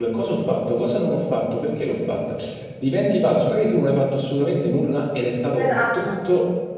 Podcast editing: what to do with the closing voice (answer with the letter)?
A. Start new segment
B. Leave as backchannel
B